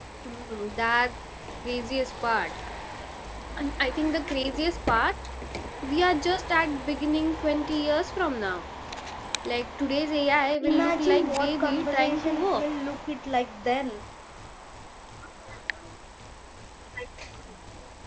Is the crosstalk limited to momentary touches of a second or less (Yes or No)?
No